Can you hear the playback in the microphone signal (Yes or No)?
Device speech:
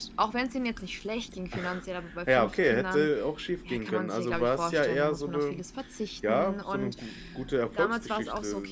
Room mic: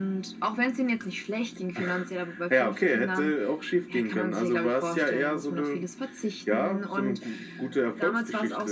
Yes